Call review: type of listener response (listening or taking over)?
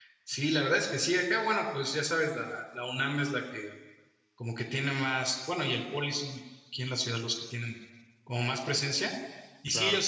listening